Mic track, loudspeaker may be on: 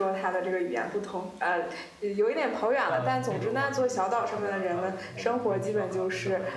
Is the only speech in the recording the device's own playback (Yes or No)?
No